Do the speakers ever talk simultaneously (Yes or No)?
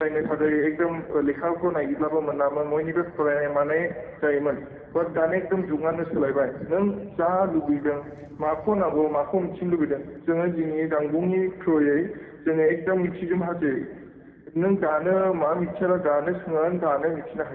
No